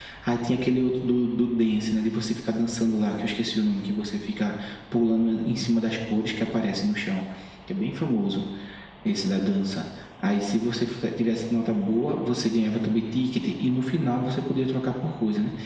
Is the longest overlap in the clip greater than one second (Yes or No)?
No